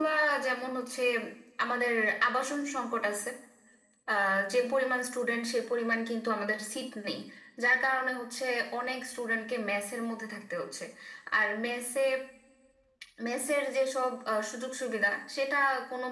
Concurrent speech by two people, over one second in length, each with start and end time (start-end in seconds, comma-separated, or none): none